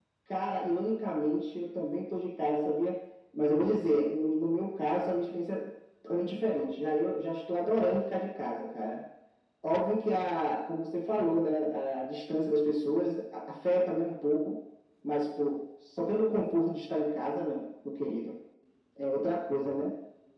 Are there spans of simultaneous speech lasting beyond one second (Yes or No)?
No